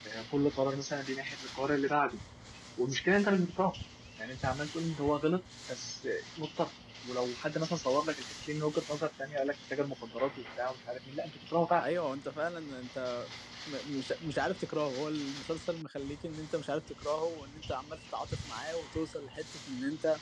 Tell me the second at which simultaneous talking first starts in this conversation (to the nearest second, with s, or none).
none